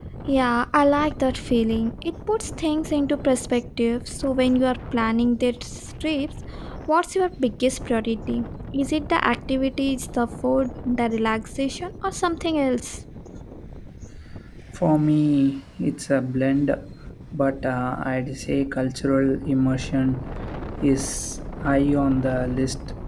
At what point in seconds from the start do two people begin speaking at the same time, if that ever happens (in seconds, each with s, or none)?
none